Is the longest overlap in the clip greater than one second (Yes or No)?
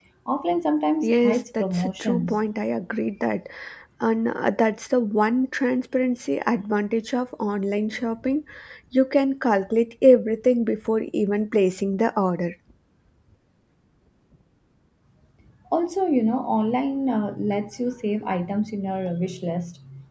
Yes